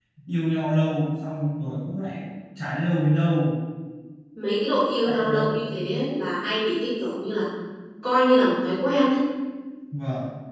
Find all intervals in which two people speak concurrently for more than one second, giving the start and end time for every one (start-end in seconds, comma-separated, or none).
none